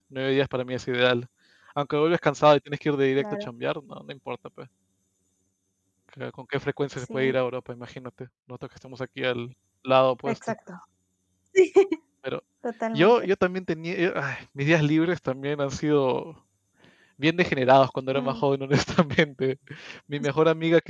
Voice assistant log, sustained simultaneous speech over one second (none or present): none